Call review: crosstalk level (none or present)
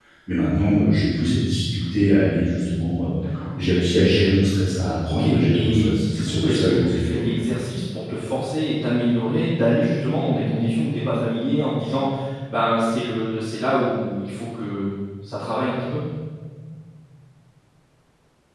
present